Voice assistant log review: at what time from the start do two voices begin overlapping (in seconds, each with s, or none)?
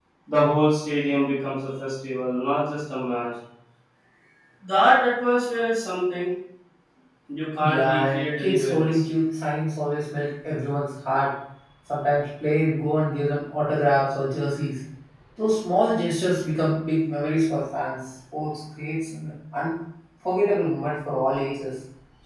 7.6 s